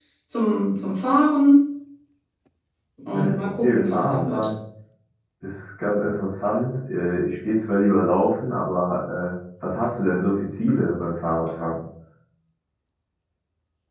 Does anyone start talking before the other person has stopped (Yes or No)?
Yes